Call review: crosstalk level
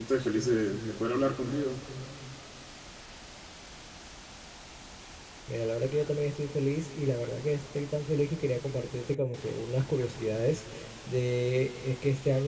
none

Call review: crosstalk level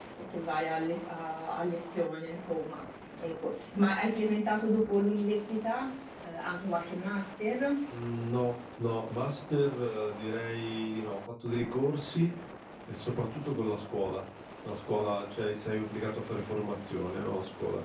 none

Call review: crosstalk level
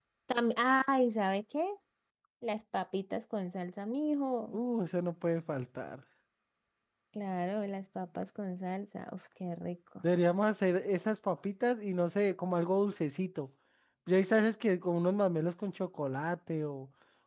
none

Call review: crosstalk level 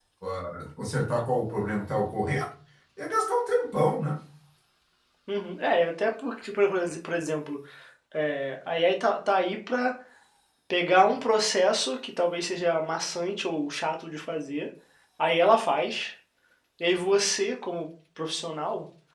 none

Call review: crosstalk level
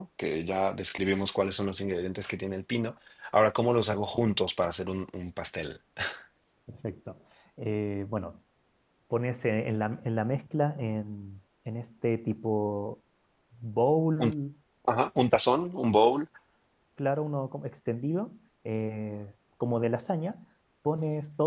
none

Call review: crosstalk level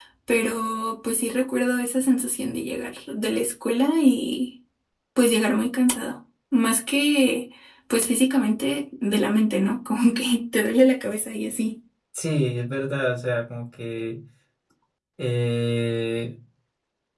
none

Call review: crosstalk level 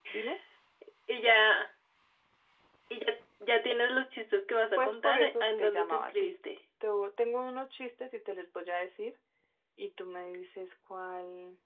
present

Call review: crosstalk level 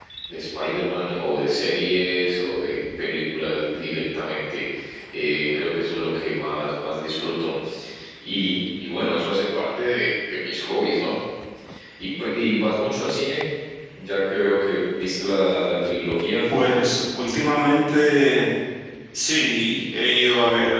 none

